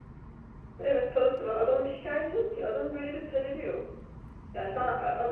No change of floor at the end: Yes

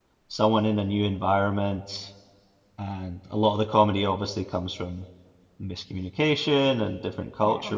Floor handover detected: No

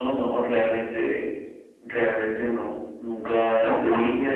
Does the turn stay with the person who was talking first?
Yes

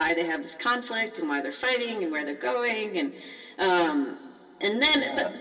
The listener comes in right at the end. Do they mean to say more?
No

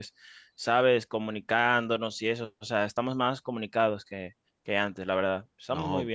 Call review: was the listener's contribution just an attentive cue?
No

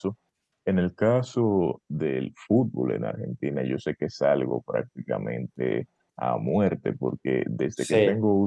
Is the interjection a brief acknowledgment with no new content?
Yes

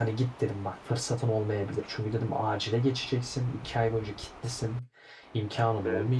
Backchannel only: Yes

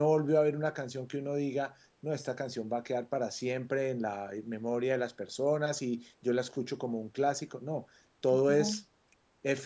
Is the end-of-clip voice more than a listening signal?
No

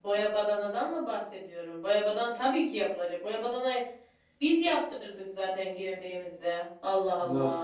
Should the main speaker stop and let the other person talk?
Yes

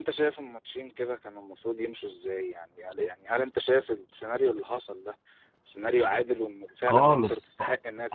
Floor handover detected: Yes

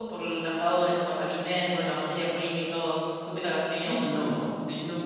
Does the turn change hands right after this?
Yes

